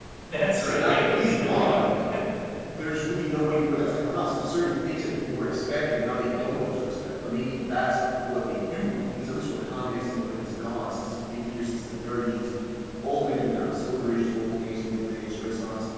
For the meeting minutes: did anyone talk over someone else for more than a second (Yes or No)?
Yes